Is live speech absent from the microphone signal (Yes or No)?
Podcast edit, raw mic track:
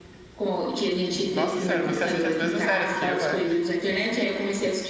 No